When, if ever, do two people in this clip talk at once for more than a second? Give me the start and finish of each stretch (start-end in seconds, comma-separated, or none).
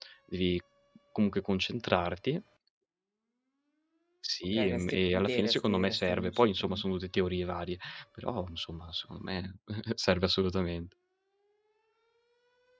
4.5-6.6